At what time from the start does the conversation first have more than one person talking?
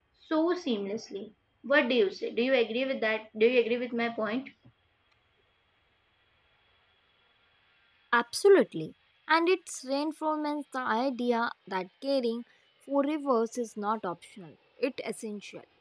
none

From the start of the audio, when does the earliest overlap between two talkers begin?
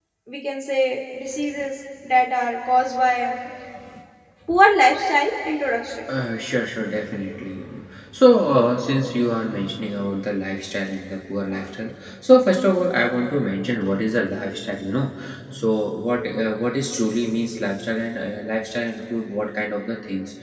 none

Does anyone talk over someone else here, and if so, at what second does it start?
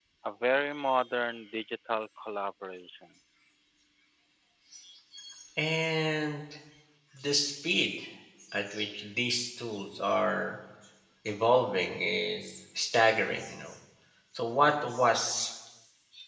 none

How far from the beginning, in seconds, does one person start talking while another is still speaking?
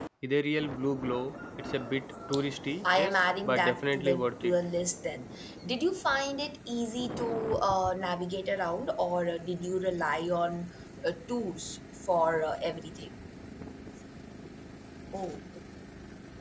2.8 s

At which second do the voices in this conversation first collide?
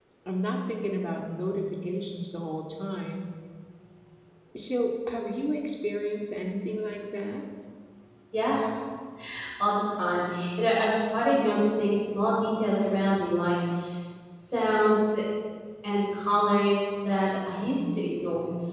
none

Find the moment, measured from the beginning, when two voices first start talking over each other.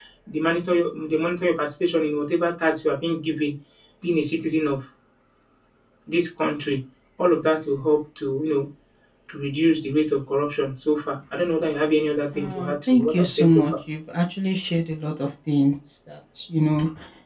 12.3 s

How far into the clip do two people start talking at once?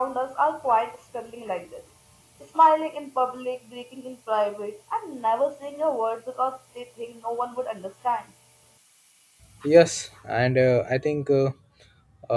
none

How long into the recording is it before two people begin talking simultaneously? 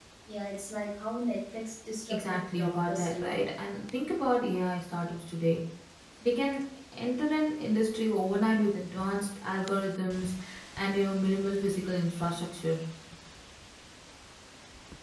2.1 s

